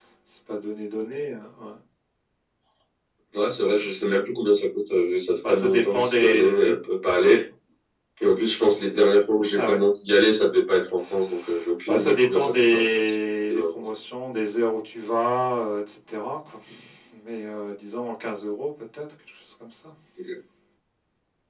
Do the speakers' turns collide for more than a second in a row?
Yes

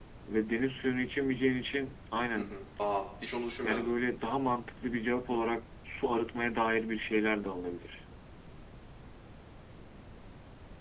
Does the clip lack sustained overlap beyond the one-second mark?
Yes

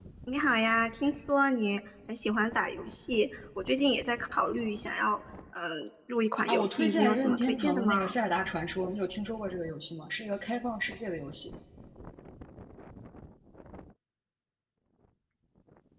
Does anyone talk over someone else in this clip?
Yes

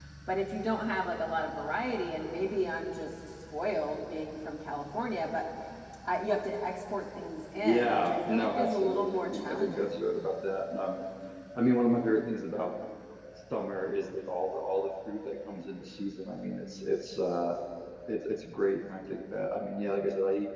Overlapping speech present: Yes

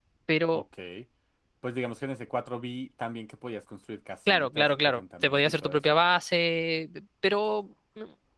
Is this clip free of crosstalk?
No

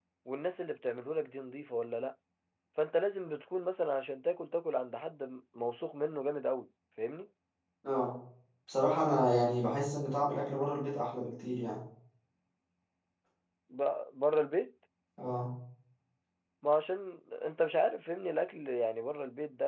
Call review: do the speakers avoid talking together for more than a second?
Yes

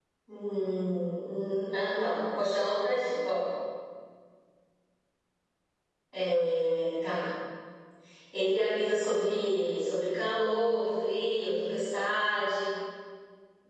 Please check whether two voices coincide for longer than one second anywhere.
No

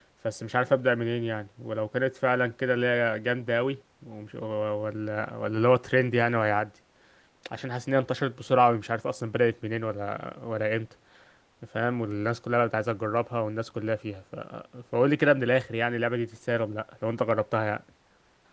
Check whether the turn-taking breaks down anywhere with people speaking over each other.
No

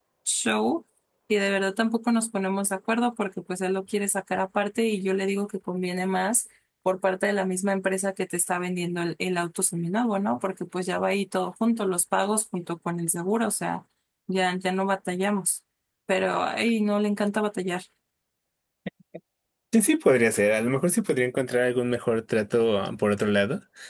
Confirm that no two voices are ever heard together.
Yes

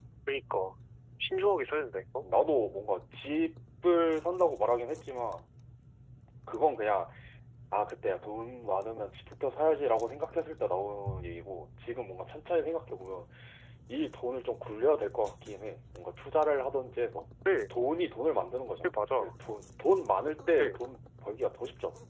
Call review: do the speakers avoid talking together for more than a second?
Yes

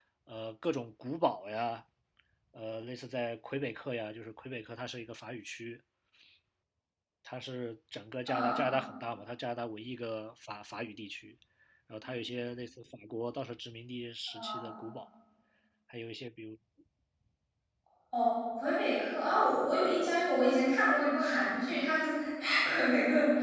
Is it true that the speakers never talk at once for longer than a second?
Yes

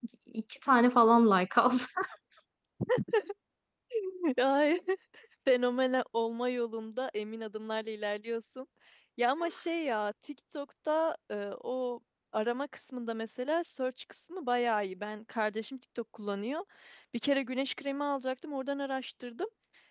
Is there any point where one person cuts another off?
No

